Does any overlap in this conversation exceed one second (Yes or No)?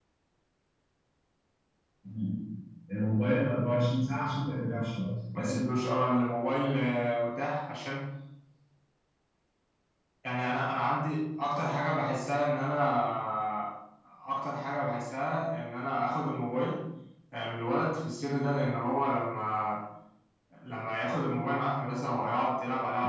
No